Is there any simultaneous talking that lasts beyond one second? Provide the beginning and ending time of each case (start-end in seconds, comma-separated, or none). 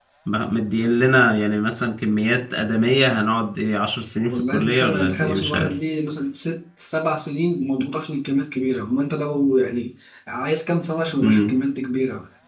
4.3-5.7